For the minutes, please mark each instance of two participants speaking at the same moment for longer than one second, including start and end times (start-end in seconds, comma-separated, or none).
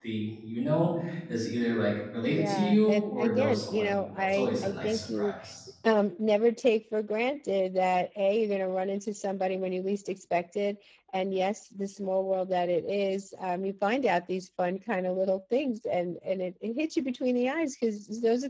2.3-5.3